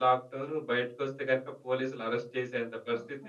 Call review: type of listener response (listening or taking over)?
listening